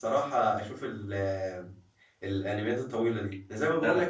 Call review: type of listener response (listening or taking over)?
listening